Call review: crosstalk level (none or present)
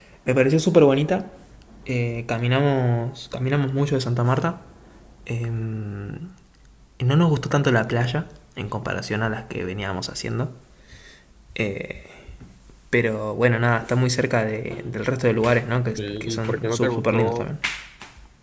present